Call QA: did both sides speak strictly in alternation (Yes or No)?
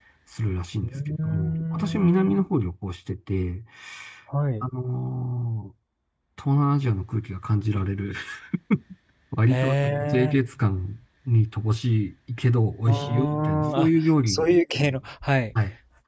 No